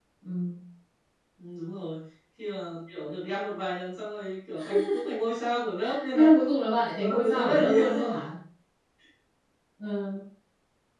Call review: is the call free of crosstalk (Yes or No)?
No